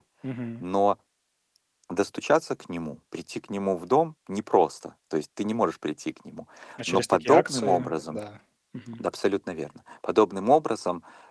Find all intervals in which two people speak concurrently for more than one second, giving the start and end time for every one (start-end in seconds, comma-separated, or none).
6.9-8.2